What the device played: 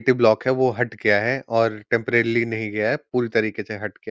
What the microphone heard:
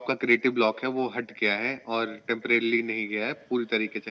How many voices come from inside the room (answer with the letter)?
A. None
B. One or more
A